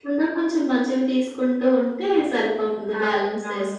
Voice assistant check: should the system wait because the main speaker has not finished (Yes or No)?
No